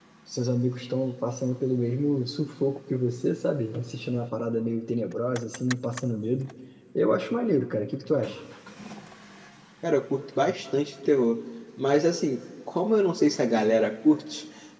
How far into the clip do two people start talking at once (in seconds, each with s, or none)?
none